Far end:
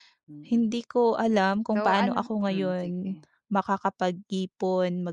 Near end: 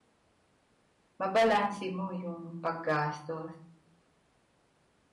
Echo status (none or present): none